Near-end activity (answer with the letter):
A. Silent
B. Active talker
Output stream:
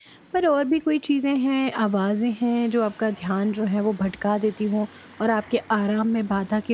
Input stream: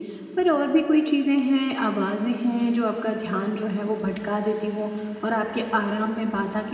A